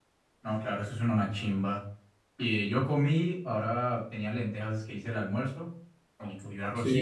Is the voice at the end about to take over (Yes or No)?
No